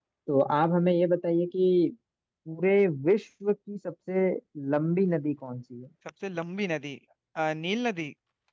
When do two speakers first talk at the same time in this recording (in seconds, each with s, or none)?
none